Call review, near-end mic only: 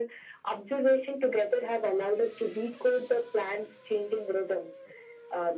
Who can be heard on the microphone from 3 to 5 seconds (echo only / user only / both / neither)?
echo only